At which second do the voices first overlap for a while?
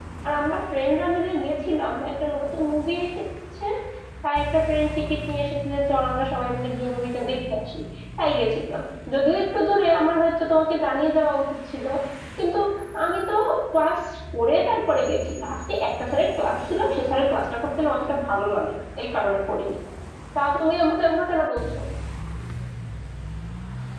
none

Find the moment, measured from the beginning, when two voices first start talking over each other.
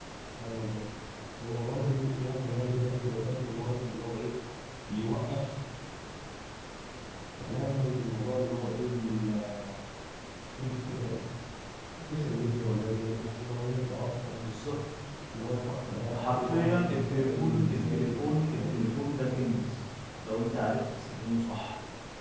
16.1 s

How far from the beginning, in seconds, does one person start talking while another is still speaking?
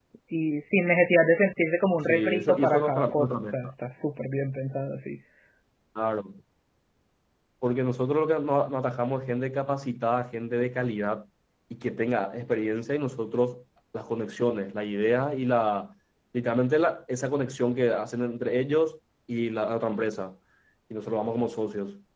2.1 s

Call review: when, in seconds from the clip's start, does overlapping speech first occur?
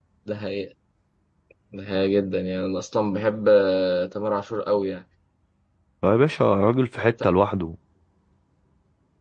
none

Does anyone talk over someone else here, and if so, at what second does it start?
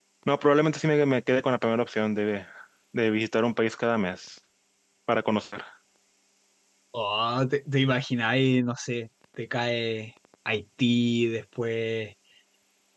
none

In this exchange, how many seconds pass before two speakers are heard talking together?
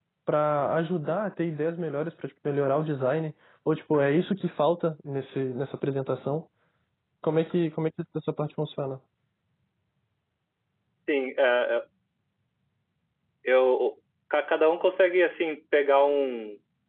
none

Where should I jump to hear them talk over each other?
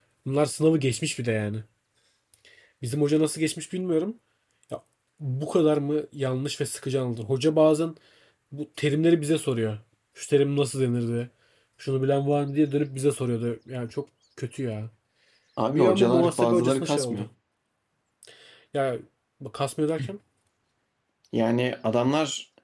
15.7 s

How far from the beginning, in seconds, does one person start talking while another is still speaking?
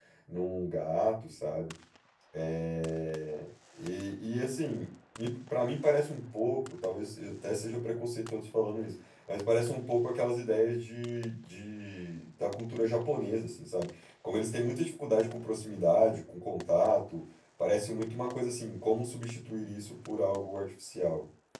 none

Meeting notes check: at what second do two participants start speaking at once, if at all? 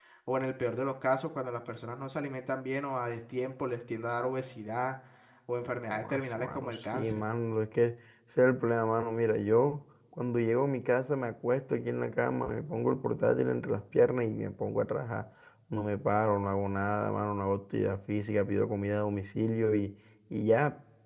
5.9 s

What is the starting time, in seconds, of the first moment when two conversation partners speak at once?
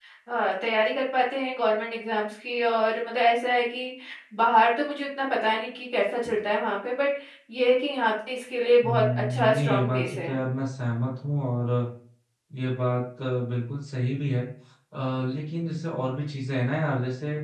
8.8 s

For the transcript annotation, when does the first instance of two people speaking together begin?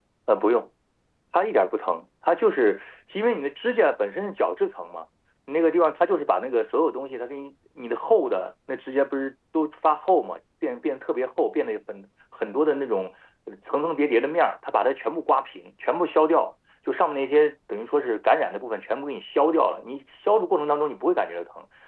none

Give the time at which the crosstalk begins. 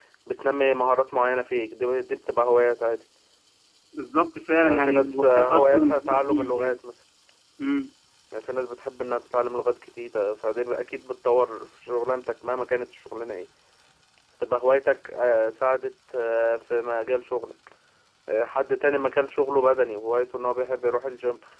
4.6 s

